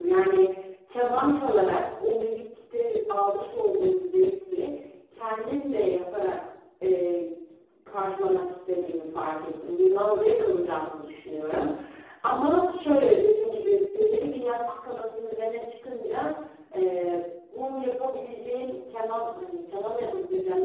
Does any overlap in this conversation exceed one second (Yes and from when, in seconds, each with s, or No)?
No